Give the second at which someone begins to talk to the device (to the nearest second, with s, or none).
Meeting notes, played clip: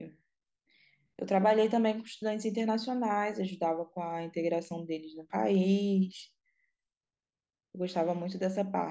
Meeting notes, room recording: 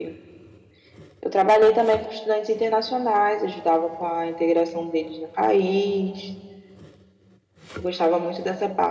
none